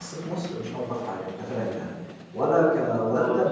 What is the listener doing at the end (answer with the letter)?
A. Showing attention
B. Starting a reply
A